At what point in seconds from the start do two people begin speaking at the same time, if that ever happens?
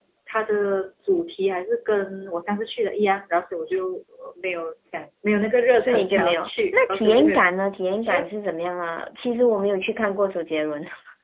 5.8 s

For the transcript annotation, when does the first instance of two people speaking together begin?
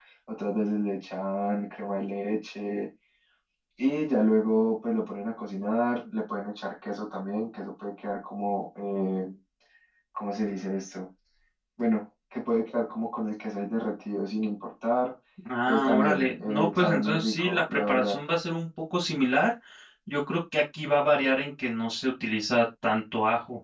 15.7 s

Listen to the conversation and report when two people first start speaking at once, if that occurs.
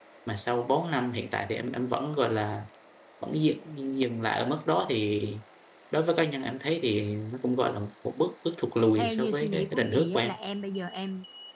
9.0 s

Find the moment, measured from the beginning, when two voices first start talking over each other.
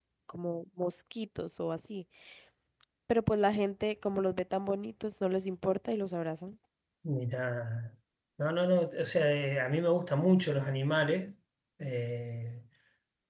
none

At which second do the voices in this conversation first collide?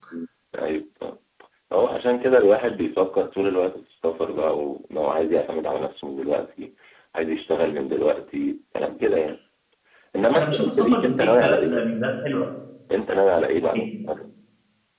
10.4 s

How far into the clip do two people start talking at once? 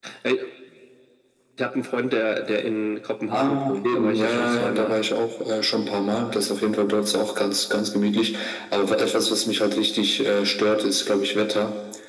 3.3 s

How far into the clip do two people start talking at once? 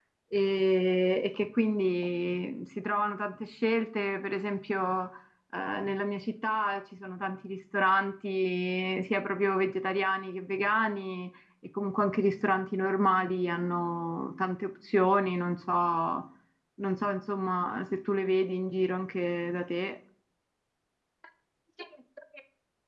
none

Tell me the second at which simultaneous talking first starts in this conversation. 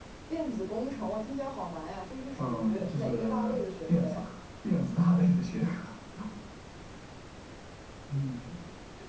2.4 s

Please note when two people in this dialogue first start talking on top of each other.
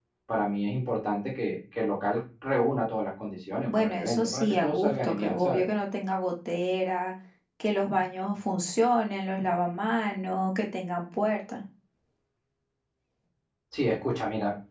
3.7 s

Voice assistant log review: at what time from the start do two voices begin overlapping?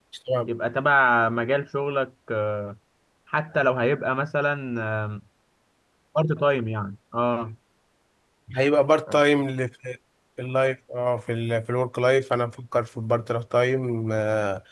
none

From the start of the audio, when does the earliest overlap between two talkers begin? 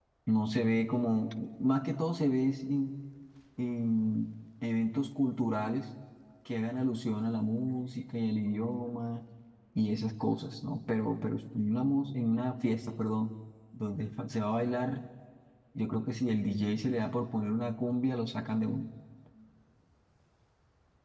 none

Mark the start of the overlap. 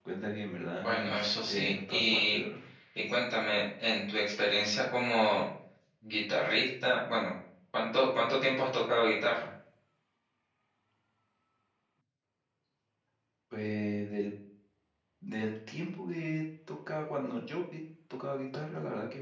0.8 s

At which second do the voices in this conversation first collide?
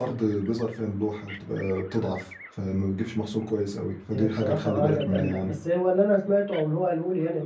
4.1 s

